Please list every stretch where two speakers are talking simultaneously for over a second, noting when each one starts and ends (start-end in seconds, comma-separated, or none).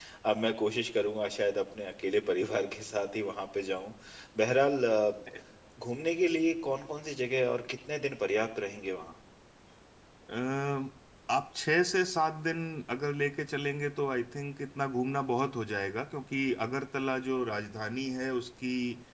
none